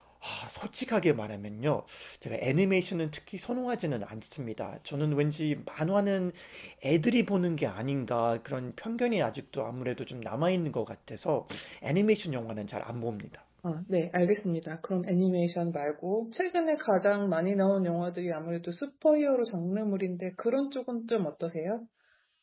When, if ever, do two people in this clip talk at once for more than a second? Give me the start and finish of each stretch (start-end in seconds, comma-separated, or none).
none